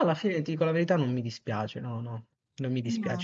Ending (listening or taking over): listening